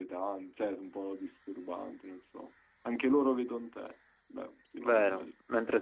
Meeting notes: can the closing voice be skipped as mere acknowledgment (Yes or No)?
No